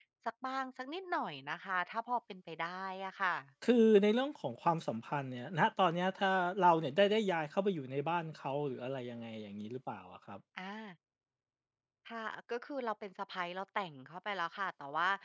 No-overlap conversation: Yes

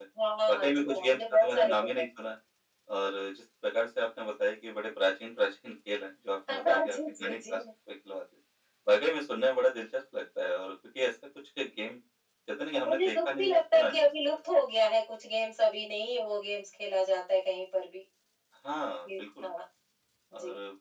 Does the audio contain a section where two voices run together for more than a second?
Yes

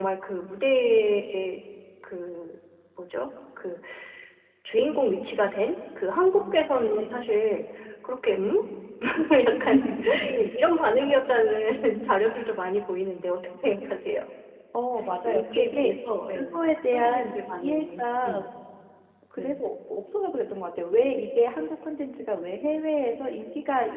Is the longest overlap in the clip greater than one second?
Yes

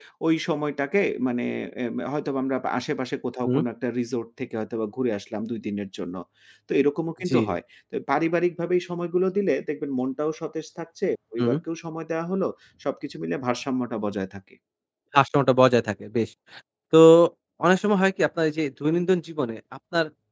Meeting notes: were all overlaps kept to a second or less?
Yes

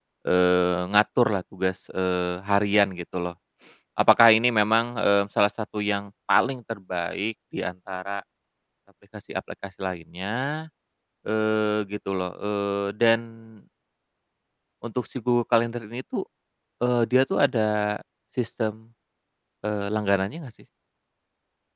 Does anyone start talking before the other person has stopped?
No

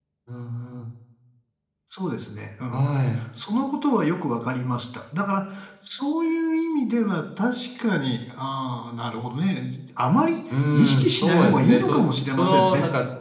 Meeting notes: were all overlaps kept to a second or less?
No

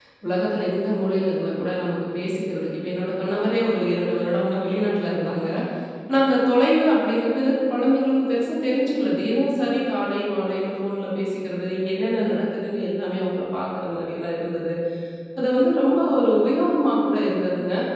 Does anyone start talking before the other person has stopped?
No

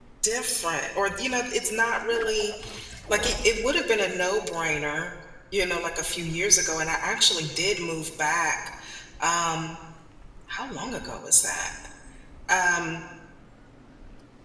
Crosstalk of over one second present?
No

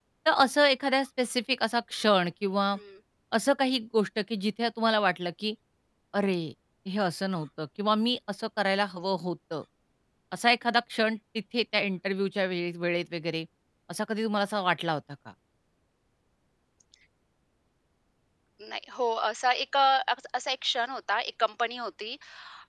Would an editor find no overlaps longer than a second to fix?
Yes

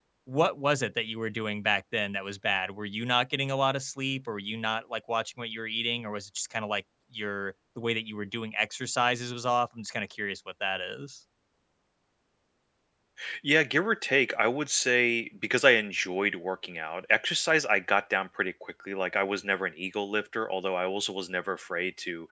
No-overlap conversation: Yes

